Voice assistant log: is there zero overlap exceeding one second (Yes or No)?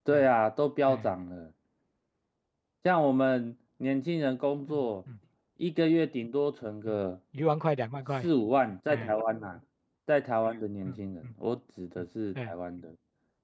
Yes